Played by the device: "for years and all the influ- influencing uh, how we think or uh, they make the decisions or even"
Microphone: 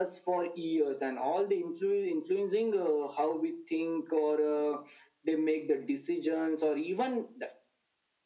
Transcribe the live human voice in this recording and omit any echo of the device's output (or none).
none